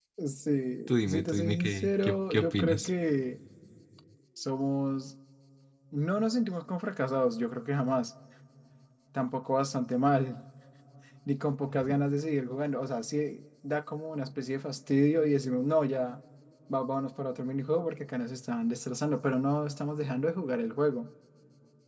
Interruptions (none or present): present